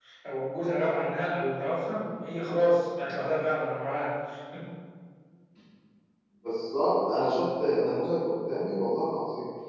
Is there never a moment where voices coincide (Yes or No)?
Yes